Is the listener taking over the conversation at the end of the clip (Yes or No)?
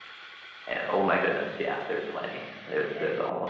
Yes